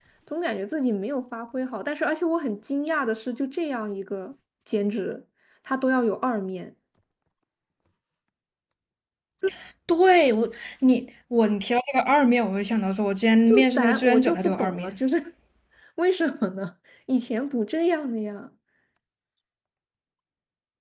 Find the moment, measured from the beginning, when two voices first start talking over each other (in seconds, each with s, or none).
13.5 s